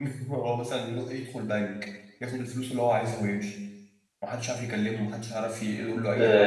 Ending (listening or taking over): taking over